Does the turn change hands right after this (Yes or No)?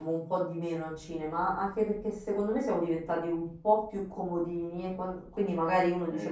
No